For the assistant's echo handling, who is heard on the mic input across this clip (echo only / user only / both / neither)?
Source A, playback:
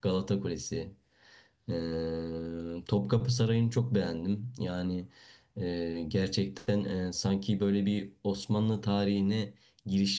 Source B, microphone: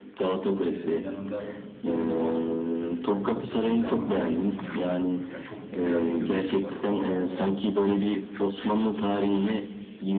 both